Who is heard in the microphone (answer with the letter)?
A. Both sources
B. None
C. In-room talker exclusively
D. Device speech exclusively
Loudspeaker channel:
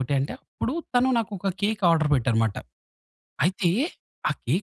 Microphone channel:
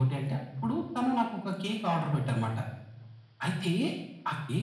D